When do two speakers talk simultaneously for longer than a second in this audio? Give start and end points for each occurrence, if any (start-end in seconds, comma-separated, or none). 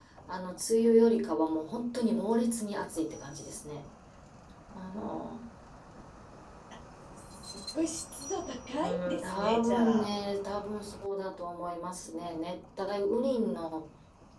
8.8-10.1